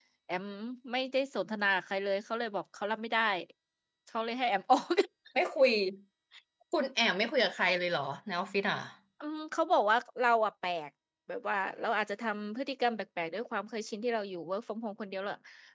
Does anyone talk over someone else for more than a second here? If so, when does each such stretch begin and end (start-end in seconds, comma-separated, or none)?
none